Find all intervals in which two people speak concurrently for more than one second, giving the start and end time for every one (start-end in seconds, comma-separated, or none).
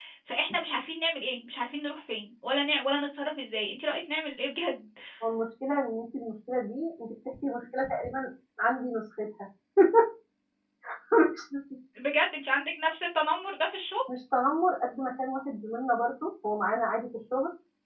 none